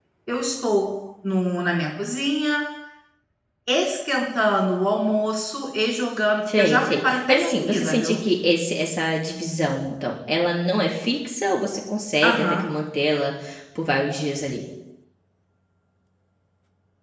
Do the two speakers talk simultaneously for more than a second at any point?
Yes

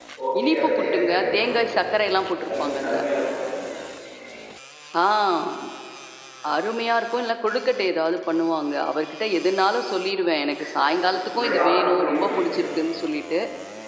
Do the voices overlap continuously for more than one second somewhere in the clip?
Yes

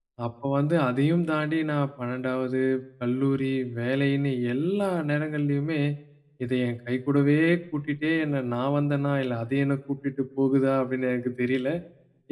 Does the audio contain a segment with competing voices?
No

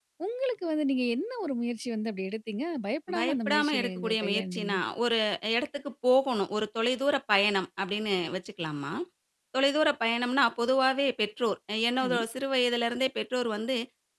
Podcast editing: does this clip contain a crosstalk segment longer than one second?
Yes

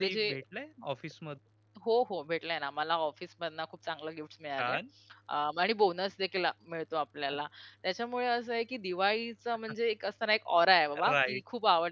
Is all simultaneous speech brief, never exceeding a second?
Yes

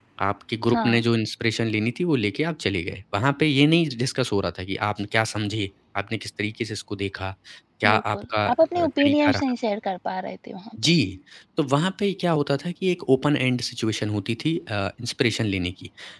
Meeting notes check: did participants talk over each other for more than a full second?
Yes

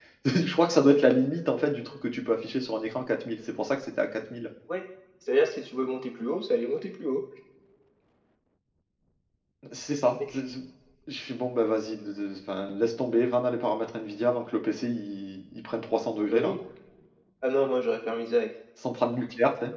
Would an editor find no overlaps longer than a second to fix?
Yes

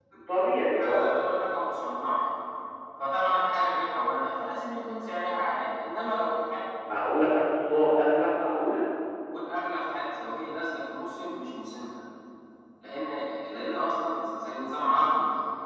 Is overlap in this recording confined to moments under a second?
Yes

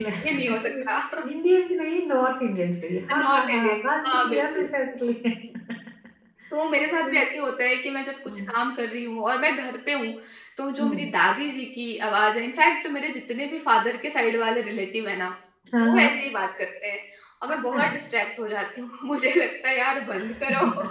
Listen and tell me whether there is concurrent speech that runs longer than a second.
Yes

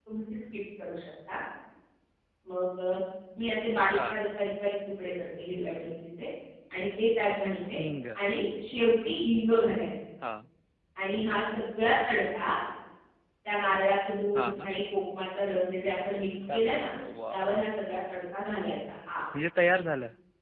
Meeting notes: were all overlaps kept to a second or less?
Yes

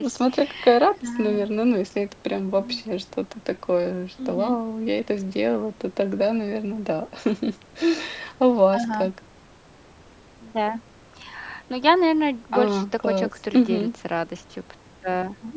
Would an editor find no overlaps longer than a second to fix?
No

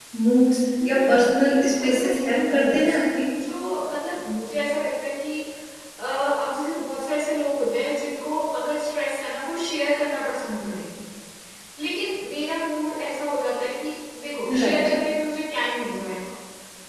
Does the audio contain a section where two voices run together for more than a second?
Yes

